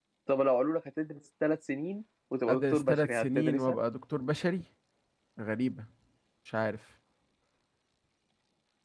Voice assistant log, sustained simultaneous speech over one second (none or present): present